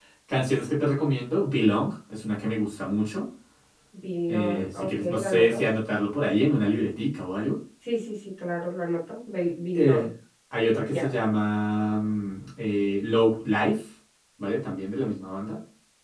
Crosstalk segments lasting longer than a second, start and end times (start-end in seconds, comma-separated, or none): 4.3-5.6